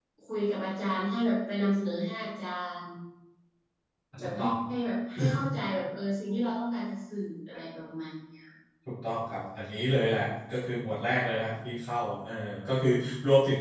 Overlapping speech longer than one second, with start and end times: none

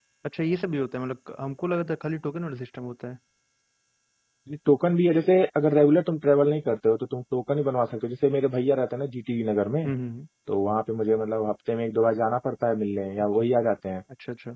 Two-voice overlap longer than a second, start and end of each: none

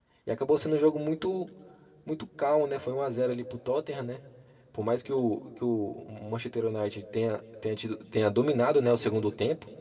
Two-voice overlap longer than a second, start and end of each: none

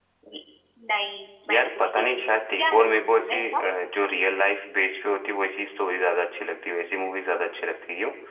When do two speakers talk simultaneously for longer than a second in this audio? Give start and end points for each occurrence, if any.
1.5-3.6

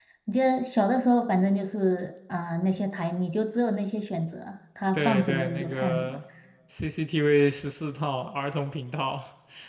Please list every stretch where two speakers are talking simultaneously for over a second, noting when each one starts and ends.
4.9-6.2

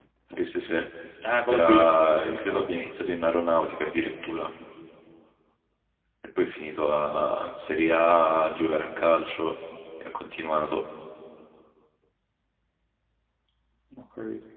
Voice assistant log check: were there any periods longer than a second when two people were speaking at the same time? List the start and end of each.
1.5-2.9

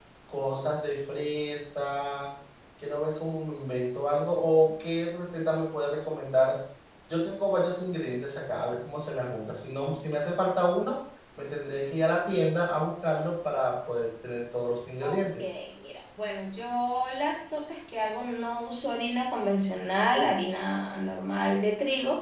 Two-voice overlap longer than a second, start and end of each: none

